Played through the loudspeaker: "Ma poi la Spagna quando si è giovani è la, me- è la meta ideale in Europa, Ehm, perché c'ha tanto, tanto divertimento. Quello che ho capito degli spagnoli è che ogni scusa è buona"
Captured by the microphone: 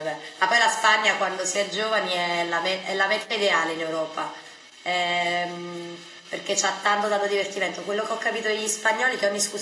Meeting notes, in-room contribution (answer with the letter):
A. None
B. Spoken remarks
A